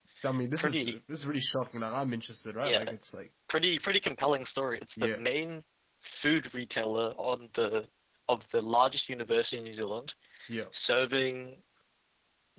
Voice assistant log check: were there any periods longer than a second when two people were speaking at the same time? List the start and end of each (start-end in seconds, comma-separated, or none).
none